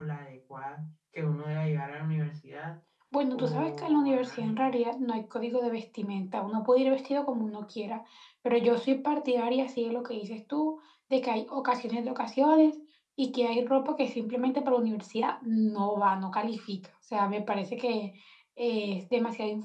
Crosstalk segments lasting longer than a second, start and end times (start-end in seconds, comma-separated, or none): 3.3-4.7